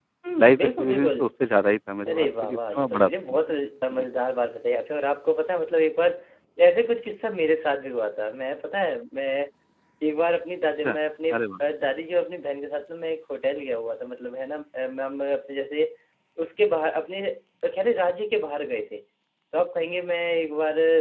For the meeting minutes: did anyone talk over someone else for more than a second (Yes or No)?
Yes